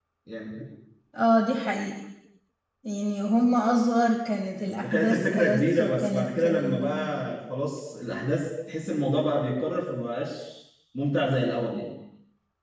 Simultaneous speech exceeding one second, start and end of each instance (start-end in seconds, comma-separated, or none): 4.8-7.2